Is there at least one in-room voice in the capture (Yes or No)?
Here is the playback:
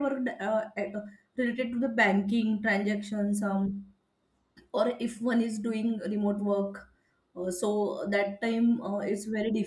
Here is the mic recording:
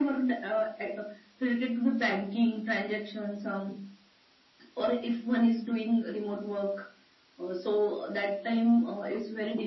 No